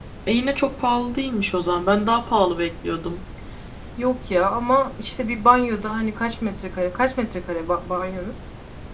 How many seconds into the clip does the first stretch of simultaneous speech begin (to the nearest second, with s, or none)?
none